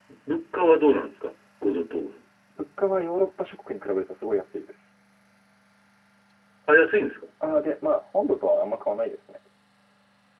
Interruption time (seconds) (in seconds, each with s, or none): none